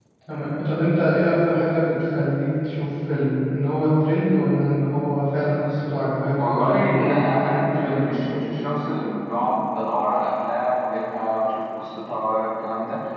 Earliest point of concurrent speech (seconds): 6.4 s

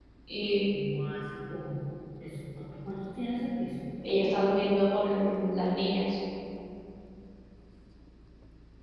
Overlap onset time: none

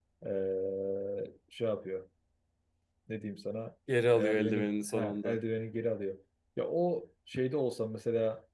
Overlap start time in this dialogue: 3.9 s

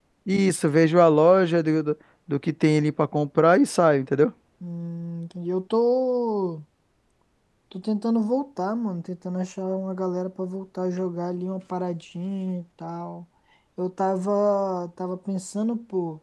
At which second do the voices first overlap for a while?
none

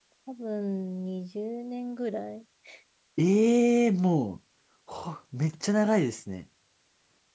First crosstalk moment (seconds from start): none

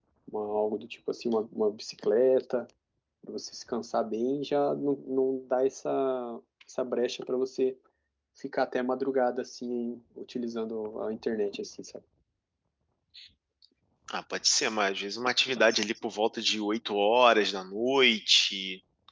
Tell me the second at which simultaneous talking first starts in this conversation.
none

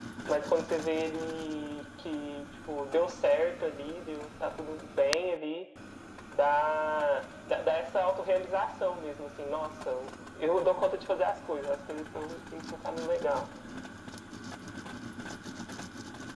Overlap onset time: none

